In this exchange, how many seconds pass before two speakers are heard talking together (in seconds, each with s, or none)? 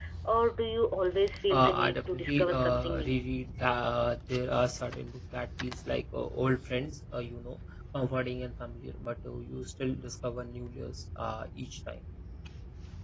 1.5 s